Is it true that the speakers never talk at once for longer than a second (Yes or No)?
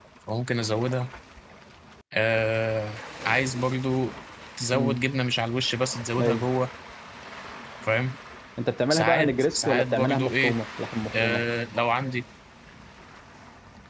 No